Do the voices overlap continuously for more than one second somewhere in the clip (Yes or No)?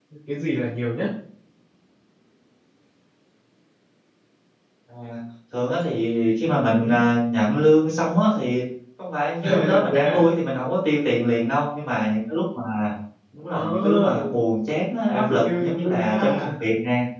Yes